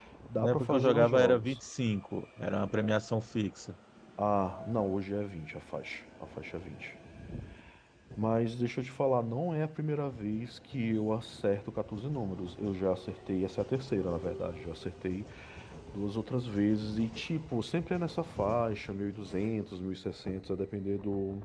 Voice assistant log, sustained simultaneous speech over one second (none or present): present